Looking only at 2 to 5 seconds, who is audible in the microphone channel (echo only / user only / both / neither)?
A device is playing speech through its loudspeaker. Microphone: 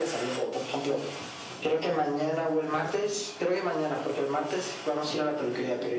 echo only